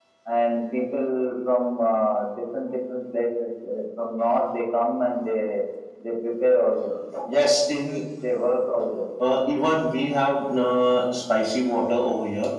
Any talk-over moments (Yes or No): No